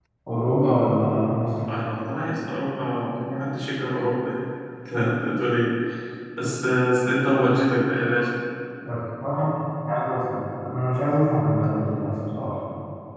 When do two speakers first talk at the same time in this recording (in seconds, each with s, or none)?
none